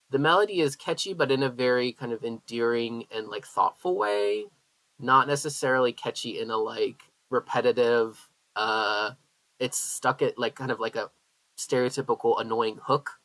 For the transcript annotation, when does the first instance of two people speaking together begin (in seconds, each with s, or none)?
none